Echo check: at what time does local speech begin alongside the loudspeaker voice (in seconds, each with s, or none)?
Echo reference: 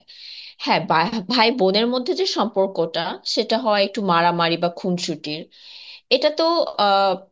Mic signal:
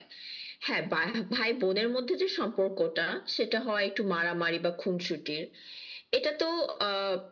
none